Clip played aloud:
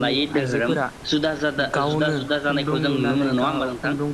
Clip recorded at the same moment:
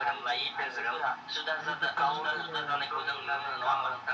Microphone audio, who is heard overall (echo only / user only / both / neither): both